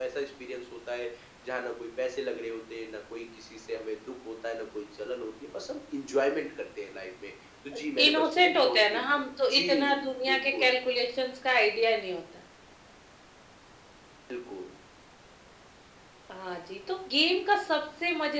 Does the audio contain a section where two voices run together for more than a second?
Yes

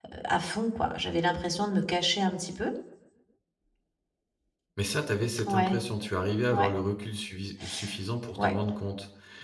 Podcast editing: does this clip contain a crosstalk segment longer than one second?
No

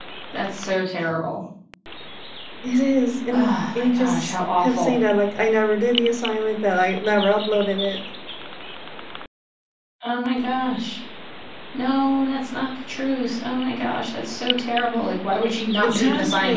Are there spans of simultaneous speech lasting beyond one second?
Yes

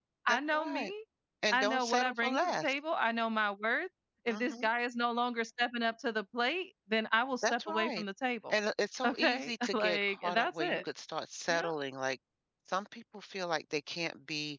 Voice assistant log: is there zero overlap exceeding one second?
No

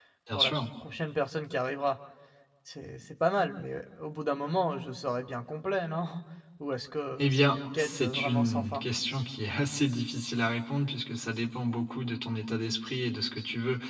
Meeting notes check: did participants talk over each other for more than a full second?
Yes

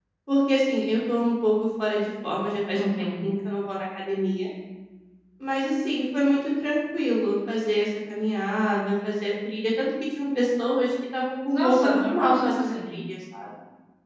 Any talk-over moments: Yes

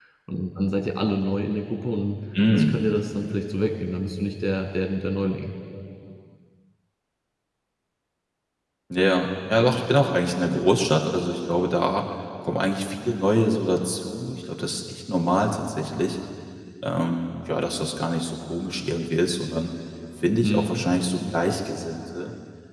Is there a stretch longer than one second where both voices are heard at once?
No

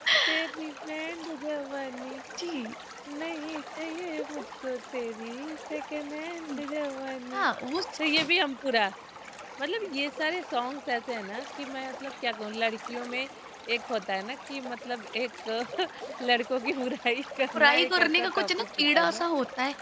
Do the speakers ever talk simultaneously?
Yes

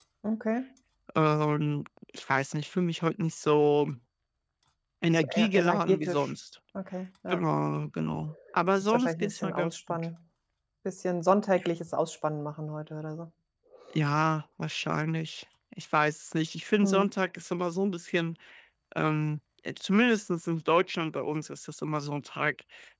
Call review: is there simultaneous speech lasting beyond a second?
Yes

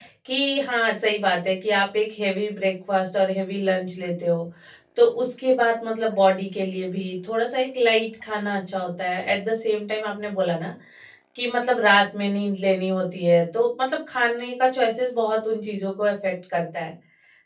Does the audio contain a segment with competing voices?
No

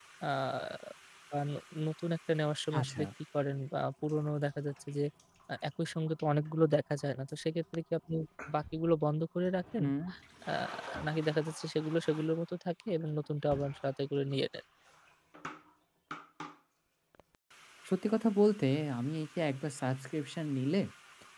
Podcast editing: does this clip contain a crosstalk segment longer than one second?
No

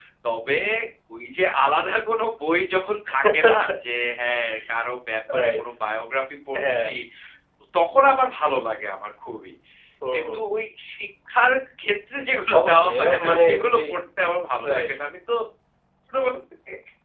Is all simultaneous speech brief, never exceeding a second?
No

